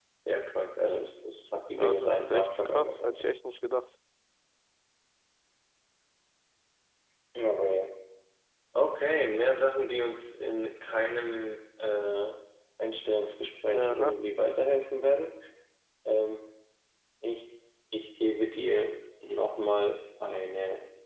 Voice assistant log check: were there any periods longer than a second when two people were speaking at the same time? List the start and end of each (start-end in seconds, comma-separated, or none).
1.7-3.2